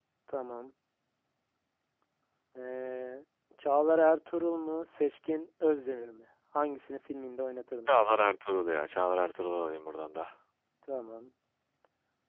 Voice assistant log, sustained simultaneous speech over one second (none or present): none